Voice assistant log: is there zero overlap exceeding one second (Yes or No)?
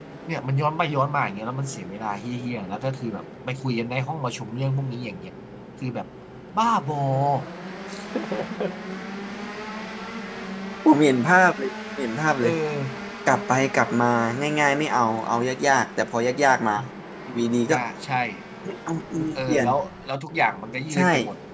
Yes